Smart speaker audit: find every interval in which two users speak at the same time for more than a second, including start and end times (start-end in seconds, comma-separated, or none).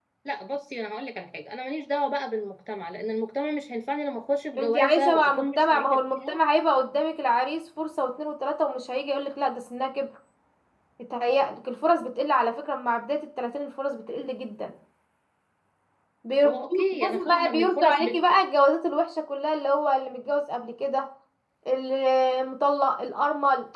4.6-6.4, 16.4-18.1